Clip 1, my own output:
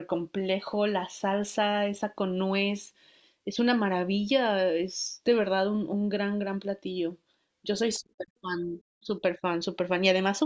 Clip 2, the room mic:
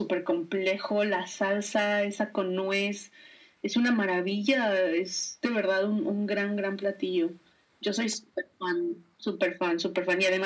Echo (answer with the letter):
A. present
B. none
A